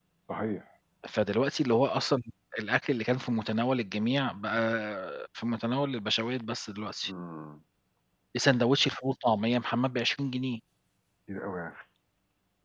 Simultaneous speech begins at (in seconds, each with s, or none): none